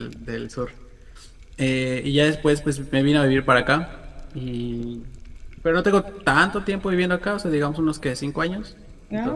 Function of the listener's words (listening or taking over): taking over